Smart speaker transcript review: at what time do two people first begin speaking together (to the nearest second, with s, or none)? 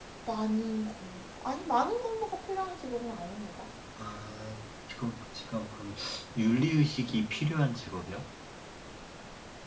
none